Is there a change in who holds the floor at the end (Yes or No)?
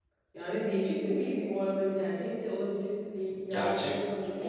Yes